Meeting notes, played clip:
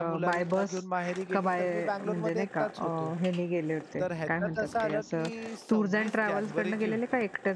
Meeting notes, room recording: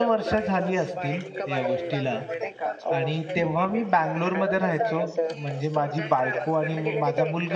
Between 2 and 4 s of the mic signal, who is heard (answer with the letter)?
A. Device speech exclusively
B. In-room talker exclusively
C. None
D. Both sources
D